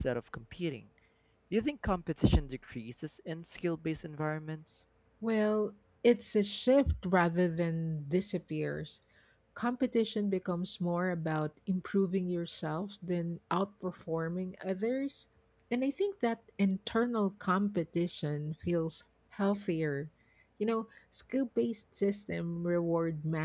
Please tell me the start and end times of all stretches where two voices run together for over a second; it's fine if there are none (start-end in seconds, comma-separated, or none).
none